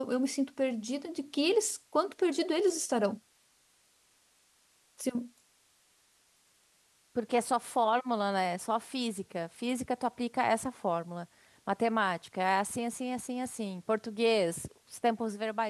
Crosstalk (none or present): none